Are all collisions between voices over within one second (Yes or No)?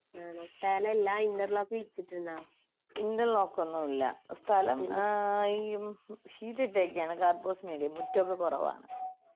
Yes